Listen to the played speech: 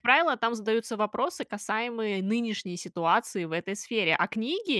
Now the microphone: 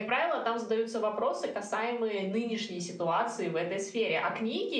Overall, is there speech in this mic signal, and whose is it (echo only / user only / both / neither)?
echo only